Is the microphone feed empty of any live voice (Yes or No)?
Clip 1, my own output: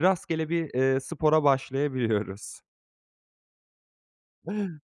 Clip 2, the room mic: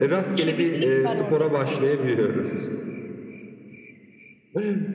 No